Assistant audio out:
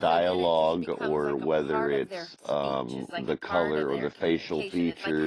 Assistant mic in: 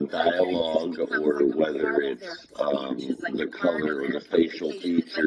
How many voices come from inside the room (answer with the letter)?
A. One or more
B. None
B